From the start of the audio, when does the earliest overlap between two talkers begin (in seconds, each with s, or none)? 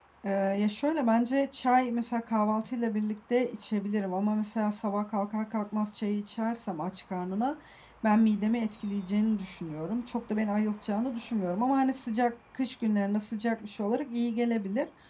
none